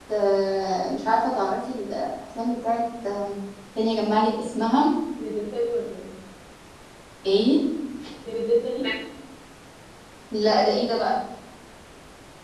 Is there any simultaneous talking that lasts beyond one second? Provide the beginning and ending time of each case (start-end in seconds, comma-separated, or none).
none